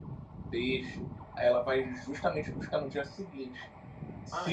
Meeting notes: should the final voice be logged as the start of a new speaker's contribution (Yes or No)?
No